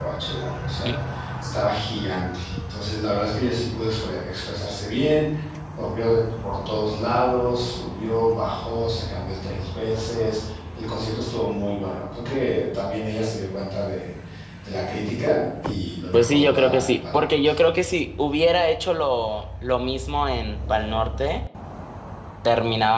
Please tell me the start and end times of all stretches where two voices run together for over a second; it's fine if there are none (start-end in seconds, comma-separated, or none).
16.1-17.5